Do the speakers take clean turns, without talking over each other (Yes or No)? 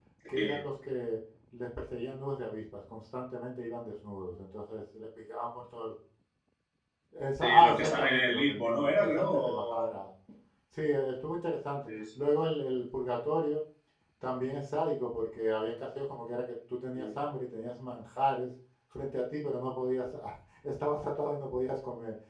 No